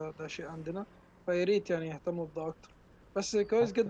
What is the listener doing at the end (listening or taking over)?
listening